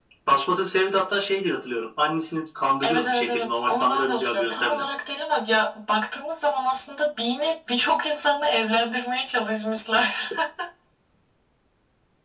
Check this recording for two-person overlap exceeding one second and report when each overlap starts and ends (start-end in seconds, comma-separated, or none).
2.8-4.9